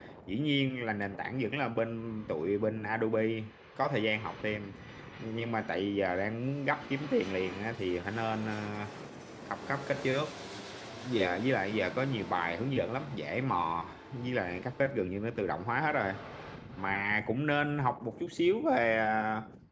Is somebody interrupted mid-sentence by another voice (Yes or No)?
No